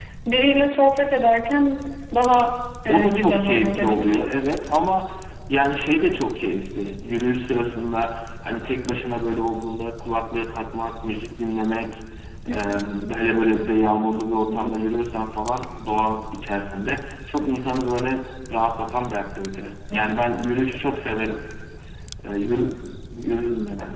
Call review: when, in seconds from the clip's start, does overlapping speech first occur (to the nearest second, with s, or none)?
3 s